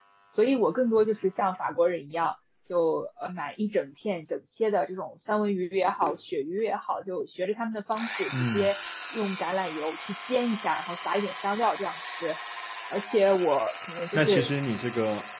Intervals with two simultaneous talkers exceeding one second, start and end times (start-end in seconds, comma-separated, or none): none